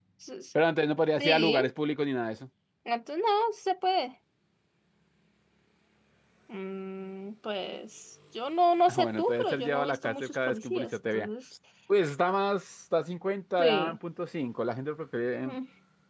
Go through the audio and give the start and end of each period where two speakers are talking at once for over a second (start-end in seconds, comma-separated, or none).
8.9-11.3